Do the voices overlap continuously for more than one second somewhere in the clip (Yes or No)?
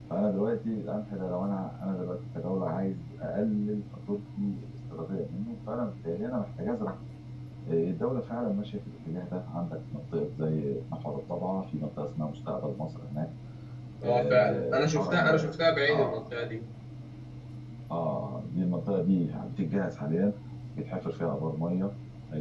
Yes